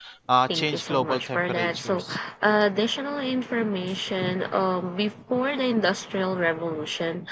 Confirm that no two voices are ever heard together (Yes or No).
No